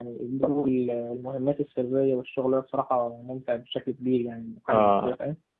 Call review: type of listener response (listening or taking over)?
taking over